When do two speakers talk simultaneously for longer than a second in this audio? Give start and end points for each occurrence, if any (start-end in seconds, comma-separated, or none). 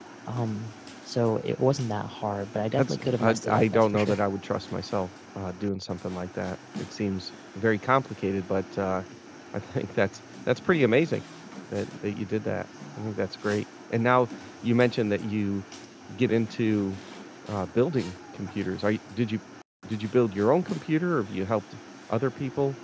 2.8-4.2